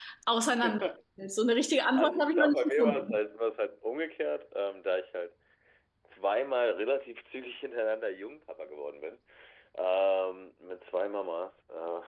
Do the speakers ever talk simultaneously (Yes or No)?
Yes